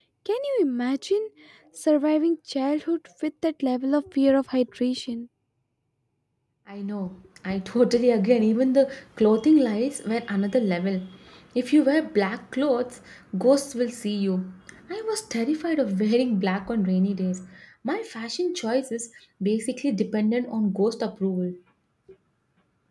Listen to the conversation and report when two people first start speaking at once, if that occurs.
none

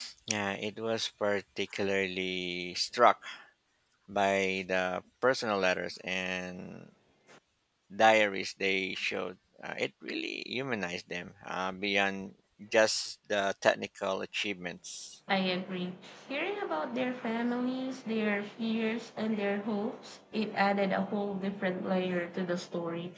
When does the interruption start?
none

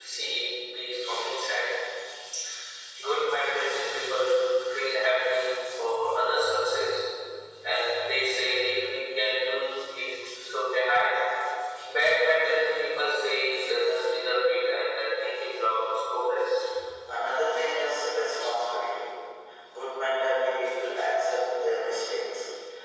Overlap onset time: none

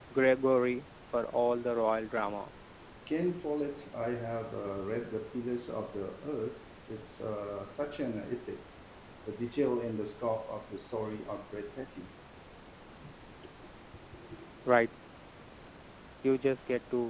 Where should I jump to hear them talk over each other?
none

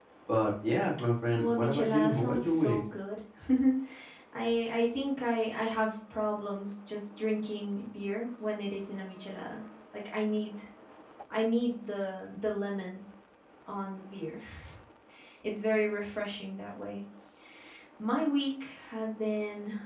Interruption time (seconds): 1.3 s

